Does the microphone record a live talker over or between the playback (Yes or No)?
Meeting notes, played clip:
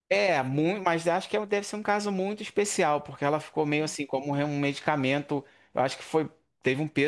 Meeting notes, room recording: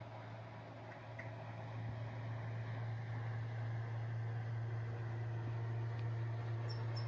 No